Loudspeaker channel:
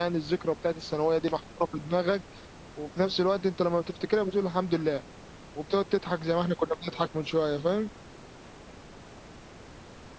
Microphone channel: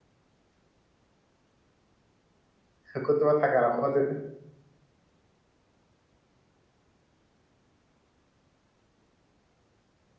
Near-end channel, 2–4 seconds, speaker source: user only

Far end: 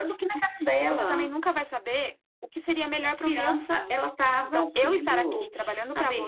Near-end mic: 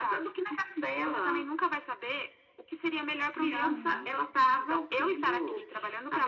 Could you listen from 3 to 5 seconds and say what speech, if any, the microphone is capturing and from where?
both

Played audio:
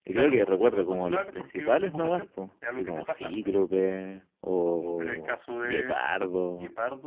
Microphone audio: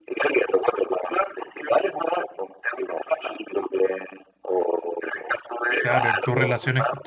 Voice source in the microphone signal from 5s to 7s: both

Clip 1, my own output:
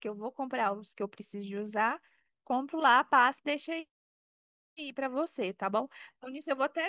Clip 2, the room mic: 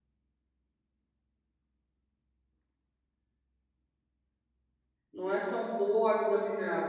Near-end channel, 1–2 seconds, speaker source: neither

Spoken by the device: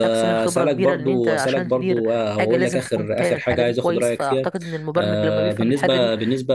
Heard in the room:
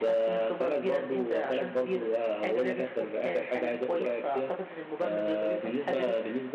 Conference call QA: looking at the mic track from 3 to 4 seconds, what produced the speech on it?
echo only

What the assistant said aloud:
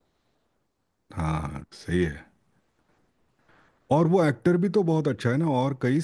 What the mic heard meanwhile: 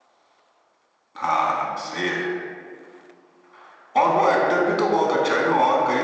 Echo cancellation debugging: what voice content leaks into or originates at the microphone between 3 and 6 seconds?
echo only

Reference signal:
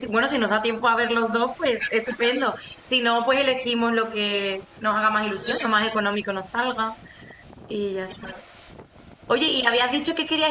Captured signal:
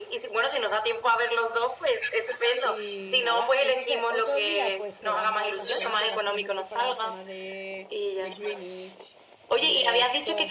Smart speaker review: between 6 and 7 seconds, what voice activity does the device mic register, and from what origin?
both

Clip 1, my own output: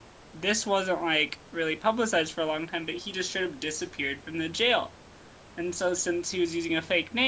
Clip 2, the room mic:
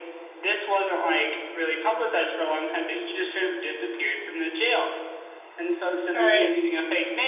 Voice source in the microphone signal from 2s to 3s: echo only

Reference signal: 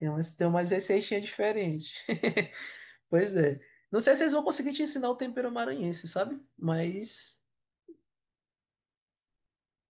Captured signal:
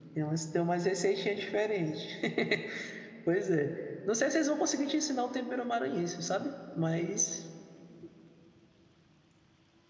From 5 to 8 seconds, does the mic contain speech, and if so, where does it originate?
echo only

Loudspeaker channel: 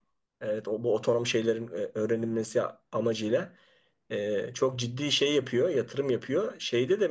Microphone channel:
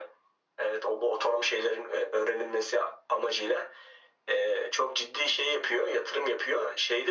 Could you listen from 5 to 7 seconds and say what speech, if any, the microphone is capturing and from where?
echo only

